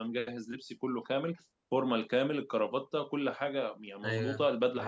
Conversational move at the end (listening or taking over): listening